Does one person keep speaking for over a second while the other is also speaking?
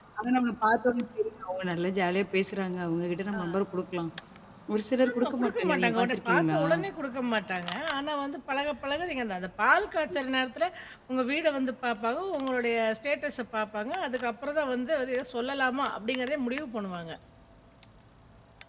Yes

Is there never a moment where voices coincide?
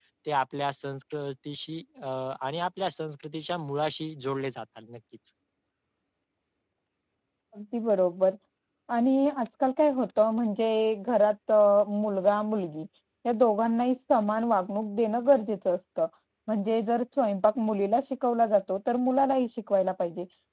Yes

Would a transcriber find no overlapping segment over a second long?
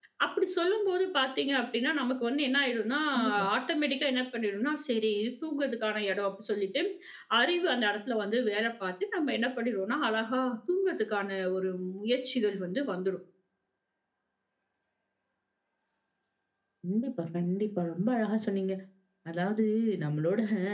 Yes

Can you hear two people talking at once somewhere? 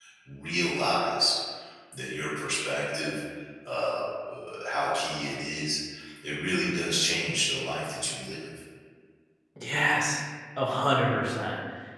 No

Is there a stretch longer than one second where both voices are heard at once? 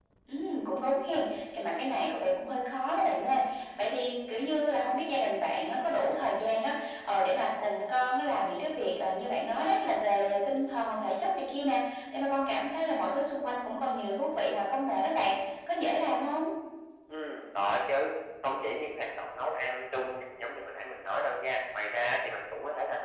No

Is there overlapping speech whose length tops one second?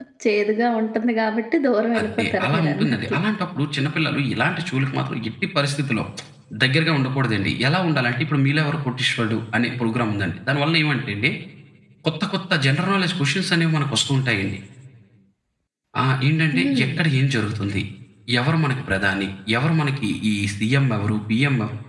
Yes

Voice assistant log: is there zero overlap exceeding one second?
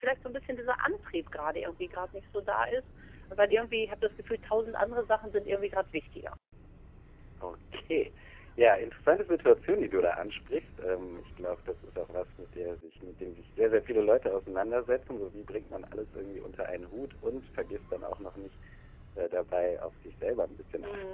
Yes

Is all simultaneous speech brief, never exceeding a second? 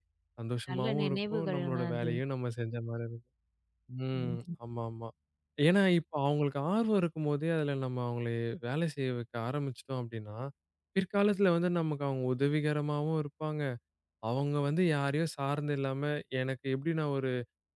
No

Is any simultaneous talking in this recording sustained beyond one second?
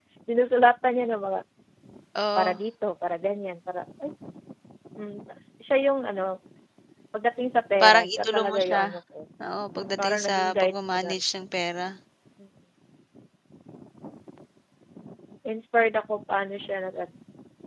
Yes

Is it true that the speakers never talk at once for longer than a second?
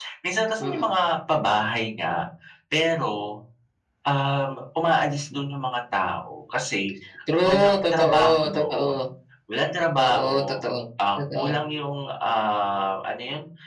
No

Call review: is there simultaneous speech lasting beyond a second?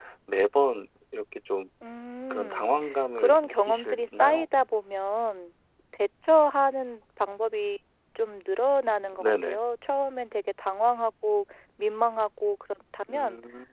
Yes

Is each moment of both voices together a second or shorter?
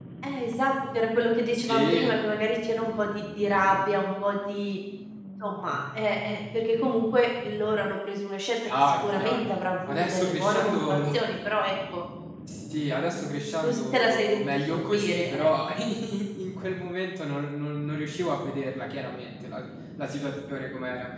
No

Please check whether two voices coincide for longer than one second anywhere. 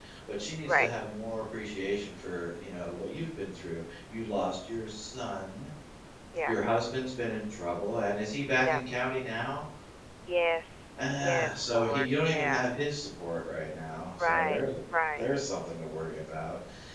Yes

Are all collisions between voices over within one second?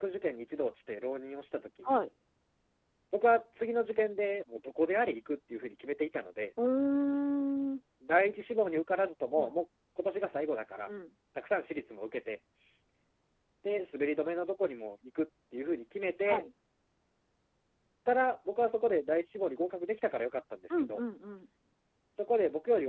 Yes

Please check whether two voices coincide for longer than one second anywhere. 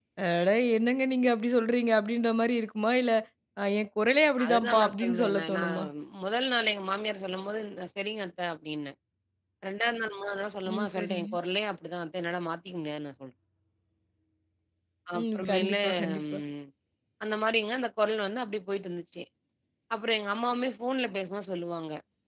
Yes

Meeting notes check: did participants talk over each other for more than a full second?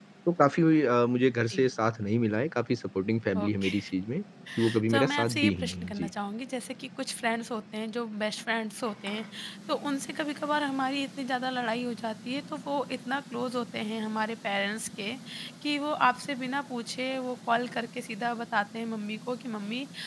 Yes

